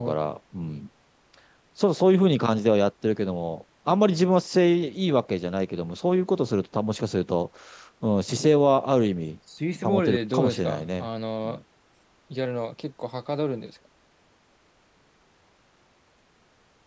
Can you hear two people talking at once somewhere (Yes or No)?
Yes